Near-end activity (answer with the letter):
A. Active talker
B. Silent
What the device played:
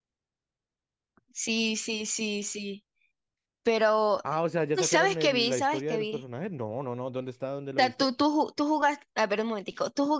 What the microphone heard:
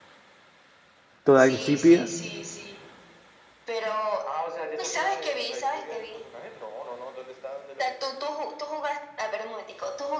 A